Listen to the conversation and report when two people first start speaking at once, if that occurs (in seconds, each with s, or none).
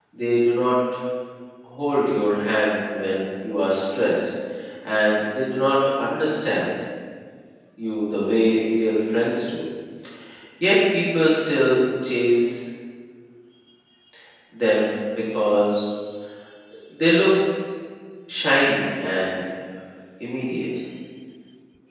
none